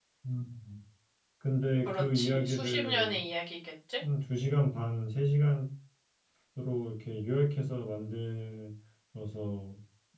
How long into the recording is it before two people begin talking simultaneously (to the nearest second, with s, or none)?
2 s